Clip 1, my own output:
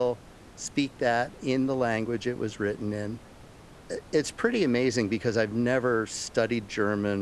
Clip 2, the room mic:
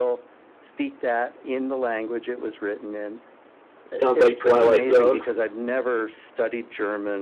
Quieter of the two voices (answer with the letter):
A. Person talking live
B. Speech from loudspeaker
B